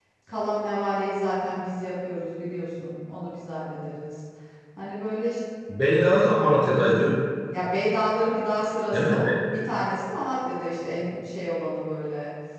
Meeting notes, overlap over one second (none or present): none